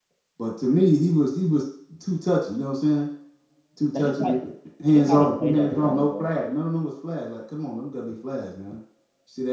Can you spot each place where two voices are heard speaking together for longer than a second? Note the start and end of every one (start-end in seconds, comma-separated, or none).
4.9-6.3